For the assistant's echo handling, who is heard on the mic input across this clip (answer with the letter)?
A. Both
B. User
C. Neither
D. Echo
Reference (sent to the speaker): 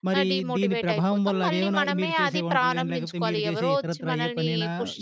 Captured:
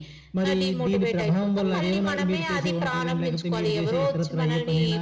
D